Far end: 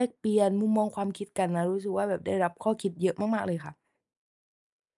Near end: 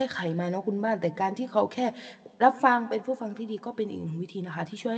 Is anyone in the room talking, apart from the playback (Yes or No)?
Yes